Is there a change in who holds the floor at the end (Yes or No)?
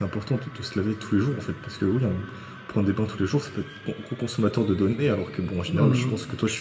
Yes